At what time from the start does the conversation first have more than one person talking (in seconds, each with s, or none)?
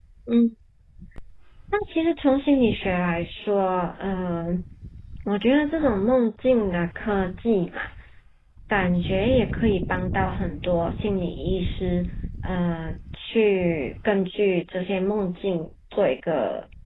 none